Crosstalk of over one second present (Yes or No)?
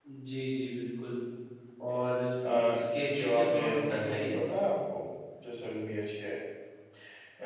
Yes